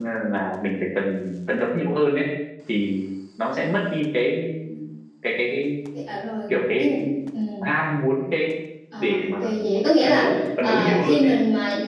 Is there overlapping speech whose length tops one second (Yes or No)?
Yes